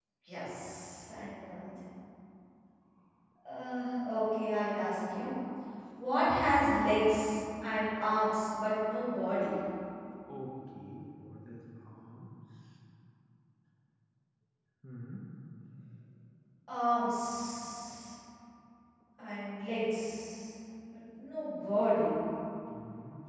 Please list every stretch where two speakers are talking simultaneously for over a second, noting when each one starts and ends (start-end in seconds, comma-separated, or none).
none